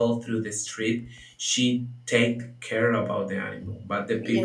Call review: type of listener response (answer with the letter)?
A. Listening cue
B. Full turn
A